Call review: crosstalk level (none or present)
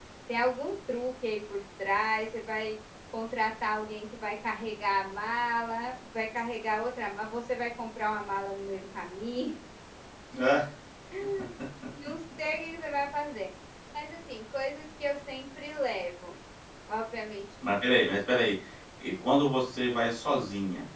none